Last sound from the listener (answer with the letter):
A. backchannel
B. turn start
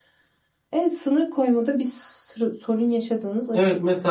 B